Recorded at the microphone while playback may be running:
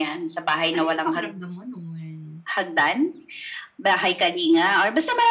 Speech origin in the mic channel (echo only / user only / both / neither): both